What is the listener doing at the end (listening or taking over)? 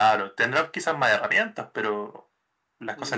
taking over